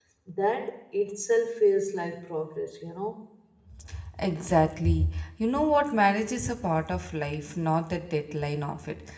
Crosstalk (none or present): none